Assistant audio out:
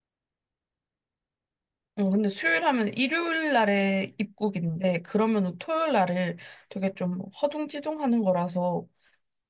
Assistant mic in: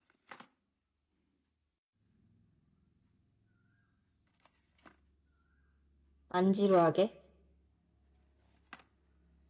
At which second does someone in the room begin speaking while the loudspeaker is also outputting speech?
6.3 s

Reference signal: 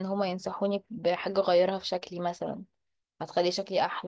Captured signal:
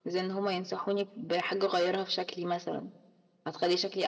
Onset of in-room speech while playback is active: none

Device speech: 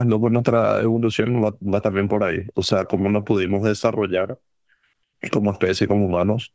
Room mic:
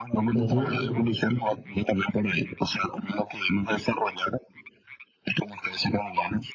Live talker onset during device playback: 0.3 s

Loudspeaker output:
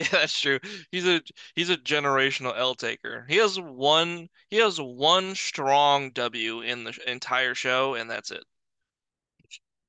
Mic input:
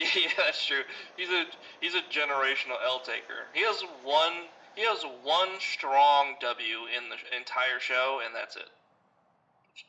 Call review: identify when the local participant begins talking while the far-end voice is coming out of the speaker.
none

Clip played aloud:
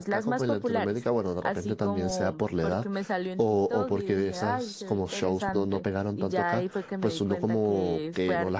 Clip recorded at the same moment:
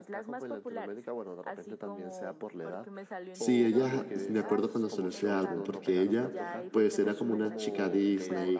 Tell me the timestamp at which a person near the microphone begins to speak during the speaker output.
3.3 s

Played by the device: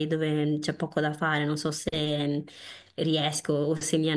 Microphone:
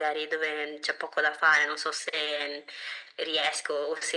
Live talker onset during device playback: none

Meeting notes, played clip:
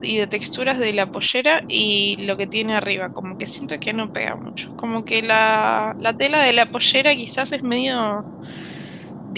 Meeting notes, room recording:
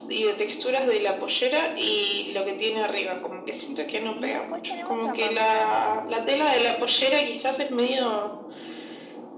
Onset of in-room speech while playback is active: 4.1 s

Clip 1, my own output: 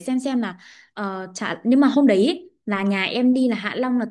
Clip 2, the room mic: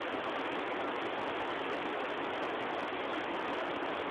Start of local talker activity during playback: none

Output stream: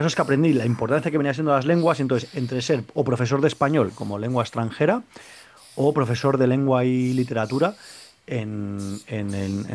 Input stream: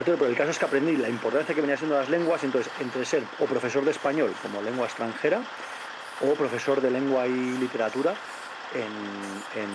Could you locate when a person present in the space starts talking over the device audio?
none

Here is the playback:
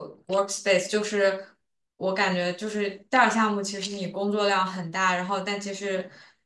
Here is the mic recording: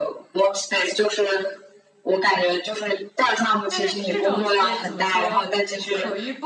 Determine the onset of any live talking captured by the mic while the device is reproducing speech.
3.7 s

